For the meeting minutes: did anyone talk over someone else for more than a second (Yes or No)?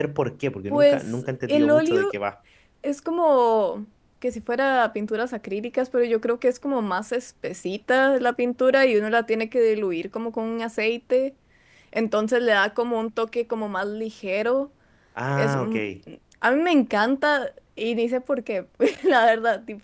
Yes